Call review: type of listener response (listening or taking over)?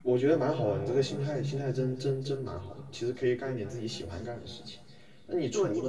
listening